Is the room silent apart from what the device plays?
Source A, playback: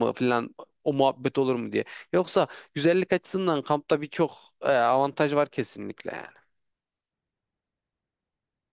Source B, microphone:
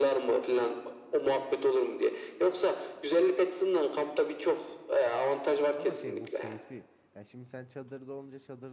No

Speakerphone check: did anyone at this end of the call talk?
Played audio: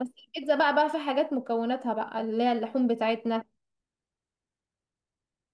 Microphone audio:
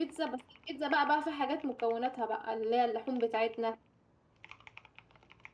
No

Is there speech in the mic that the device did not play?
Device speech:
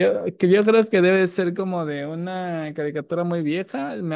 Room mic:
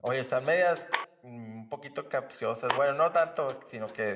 Yes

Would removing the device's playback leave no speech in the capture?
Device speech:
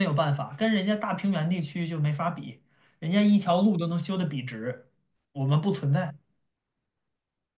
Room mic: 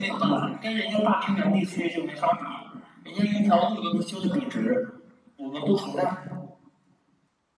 Yes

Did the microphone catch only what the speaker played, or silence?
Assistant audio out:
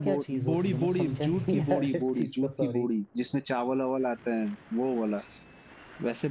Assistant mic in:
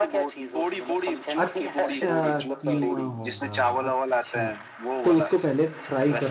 No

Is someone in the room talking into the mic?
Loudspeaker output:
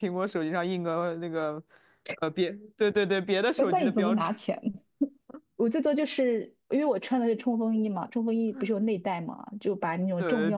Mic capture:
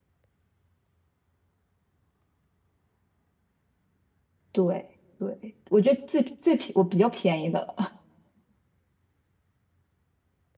Yes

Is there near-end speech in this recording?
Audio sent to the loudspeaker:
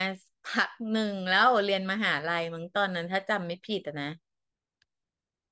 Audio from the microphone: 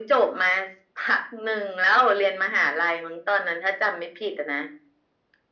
No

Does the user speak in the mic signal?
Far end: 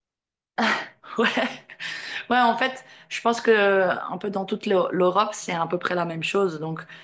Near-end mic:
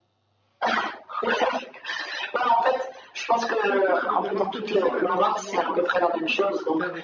Yes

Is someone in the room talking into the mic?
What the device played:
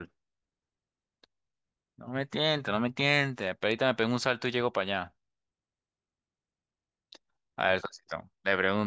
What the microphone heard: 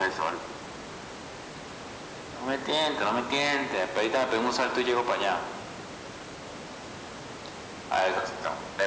No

